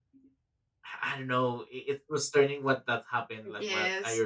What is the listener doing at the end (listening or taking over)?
taking over